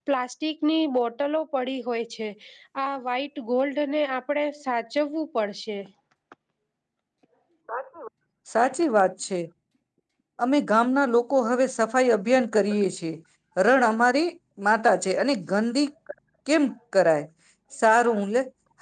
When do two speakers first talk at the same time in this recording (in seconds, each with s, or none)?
none